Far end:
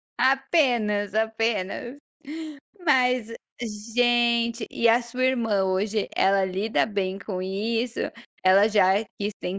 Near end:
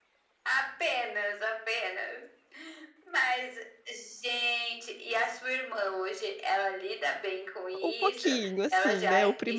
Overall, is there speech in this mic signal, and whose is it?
both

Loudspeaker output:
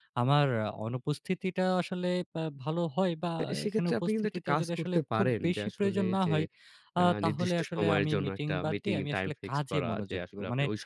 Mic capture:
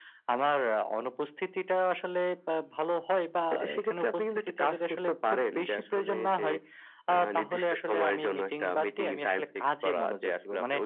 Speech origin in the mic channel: echo only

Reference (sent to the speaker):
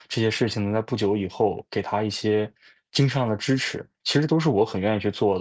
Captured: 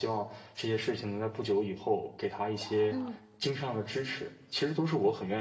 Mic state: both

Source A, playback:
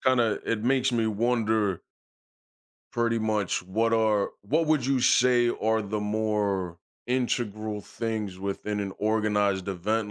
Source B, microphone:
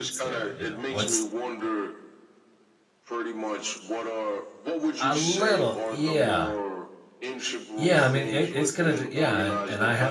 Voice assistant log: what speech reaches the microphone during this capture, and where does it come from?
both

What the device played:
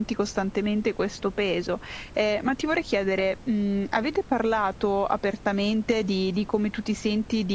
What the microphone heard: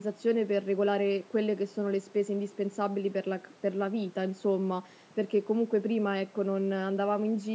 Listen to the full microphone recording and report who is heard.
user only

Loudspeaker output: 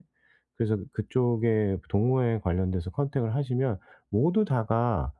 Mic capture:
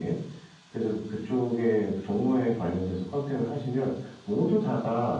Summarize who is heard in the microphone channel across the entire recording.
echo only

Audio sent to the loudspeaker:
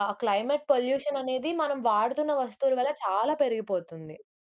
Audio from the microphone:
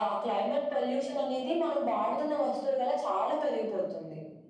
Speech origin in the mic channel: echo only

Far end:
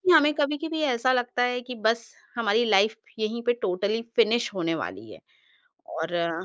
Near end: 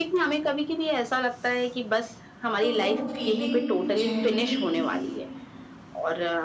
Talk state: both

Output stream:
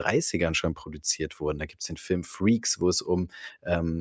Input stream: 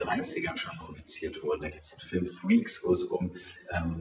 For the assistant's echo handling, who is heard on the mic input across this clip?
echo only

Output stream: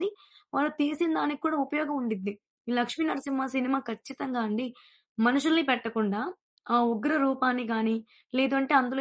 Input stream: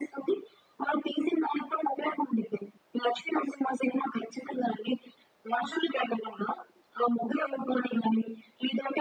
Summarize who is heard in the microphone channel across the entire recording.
echo only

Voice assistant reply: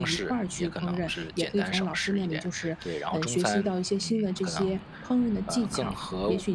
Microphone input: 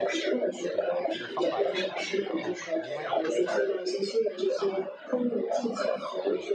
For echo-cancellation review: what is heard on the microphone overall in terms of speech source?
both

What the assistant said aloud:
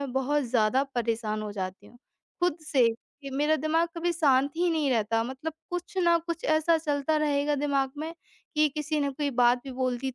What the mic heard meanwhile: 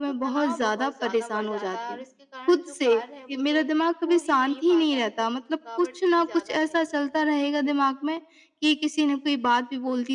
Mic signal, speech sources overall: both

